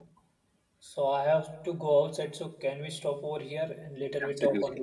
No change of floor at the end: No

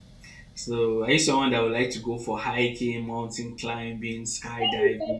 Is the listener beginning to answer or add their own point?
Yes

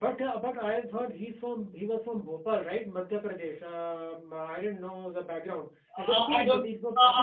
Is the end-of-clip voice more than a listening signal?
Yes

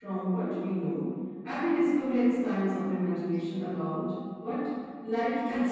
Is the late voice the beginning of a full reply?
Yes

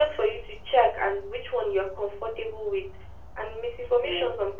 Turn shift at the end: No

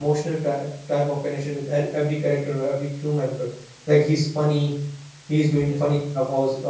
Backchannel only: Yes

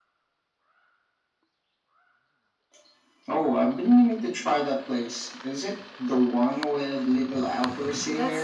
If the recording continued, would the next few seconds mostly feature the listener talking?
Yes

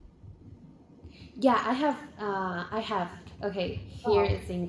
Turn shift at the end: No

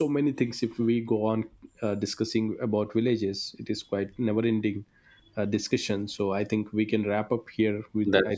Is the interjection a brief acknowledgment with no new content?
Yes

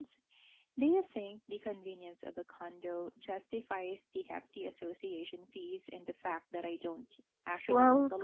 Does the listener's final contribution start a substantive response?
Yes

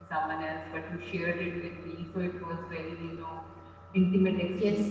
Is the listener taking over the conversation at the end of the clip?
Yes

